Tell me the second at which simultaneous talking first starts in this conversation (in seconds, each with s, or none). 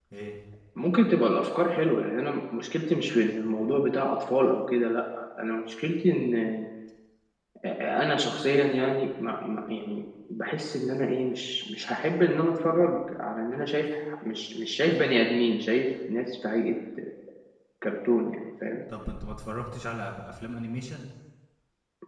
none